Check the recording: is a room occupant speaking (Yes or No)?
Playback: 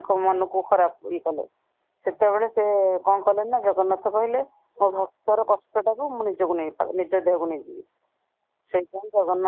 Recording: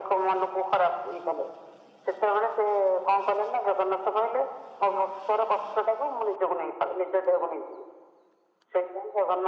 No